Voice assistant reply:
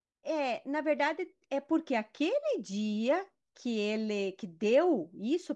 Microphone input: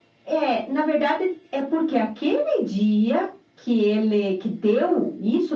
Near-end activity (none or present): none